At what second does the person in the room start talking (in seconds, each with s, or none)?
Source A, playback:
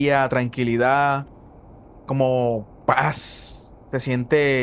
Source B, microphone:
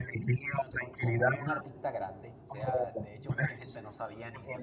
1.0 s